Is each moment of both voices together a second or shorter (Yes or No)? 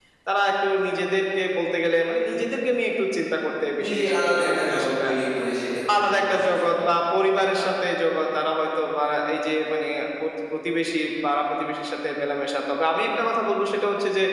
No